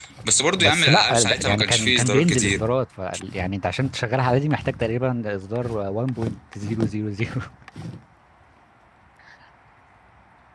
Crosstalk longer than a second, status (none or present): present